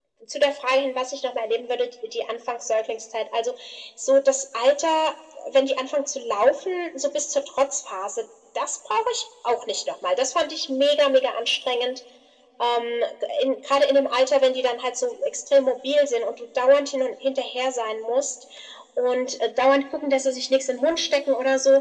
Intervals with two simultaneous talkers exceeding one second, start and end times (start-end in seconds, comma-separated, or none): none